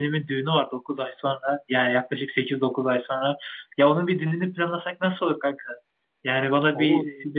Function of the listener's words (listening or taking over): listening